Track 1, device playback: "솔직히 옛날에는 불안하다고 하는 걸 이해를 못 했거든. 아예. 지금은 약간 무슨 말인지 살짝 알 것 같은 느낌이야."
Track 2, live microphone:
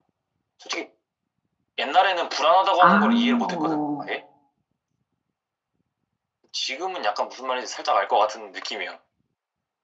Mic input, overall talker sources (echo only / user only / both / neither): both